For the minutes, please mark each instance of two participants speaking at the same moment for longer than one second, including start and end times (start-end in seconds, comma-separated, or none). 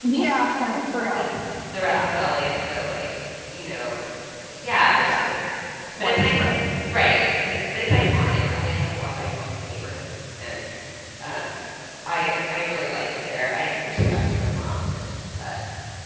none